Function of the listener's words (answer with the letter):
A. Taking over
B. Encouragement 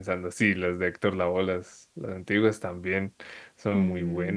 A